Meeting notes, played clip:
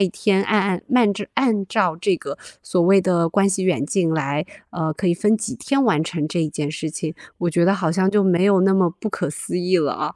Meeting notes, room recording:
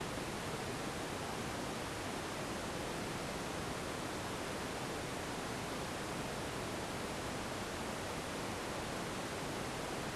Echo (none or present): none